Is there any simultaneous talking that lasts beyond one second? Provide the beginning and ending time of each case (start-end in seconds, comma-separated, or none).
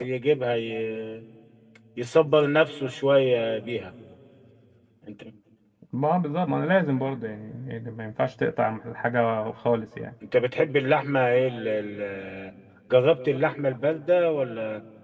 none